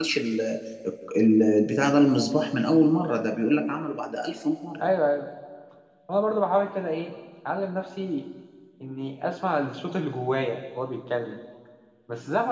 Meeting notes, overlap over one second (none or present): none